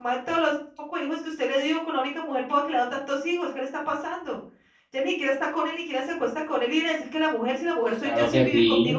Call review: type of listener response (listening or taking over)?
taking over